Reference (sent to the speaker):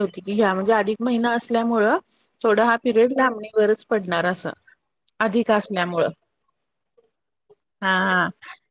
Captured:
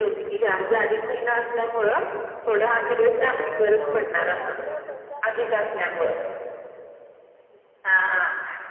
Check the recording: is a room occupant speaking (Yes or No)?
Yes